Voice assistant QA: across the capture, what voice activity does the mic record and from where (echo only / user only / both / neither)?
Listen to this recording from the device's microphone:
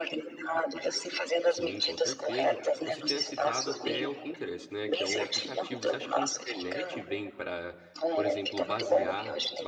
both